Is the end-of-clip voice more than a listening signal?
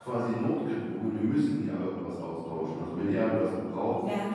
No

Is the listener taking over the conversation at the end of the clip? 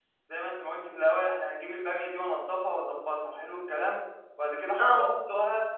No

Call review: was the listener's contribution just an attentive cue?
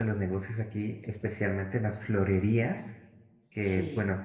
Yes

